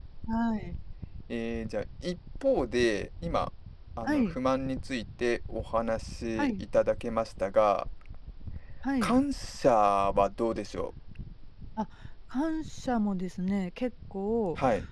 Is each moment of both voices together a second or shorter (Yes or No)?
Yes